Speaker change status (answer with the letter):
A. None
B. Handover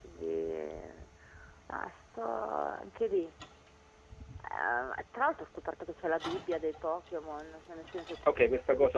B